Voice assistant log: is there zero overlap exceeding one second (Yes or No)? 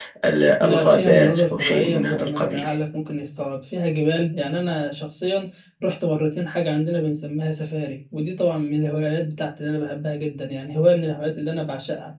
No